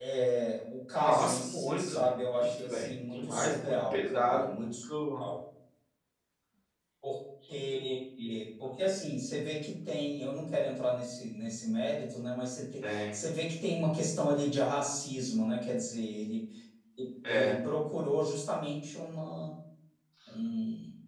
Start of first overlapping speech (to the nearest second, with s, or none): 1 s